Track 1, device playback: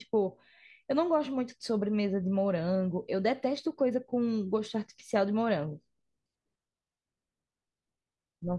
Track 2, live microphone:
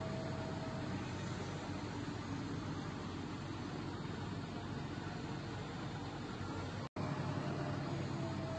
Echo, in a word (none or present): none